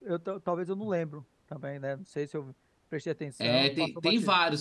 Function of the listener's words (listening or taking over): taking over